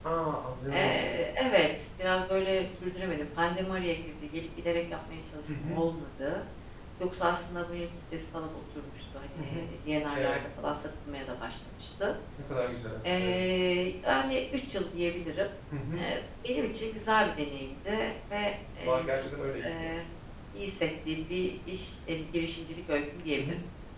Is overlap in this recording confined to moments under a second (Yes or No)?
Yes